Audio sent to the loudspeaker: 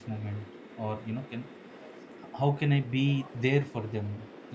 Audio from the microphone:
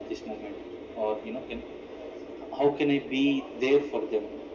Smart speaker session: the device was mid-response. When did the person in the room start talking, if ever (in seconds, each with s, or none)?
none